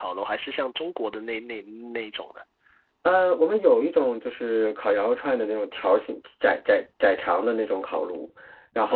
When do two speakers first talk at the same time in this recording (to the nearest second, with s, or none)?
none